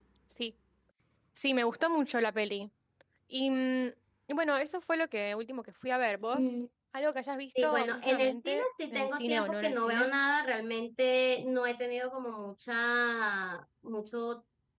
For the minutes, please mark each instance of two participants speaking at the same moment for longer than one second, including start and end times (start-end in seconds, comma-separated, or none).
7.6-10.1